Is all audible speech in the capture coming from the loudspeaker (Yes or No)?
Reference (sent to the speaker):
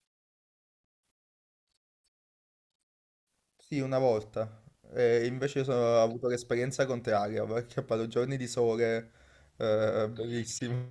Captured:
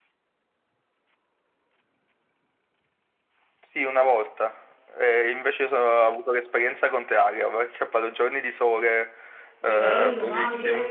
No